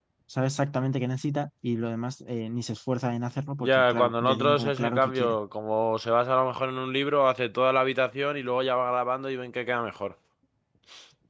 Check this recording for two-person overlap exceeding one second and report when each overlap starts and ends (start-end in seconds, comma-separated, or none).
3.6-5.4